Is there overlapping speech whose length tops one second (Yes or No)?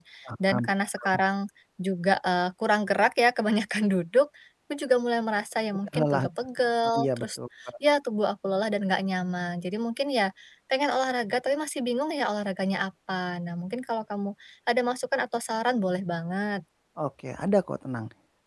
No